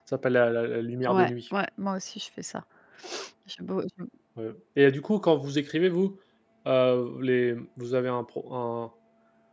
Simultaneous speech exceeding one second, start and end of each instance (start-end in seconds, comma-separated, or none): none